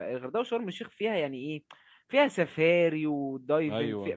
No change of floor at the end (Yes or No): Yes